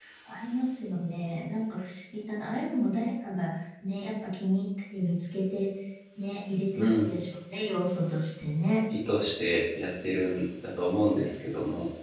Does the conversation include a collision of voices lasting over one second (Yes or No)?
No